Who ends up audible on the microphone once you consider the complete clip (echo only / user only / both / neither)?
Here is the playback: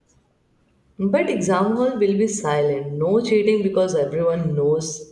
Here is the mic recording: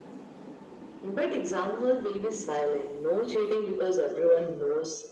echo only